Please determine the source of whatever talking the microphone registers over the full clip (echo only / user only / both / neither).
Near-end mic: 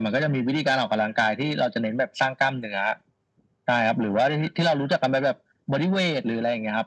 echo only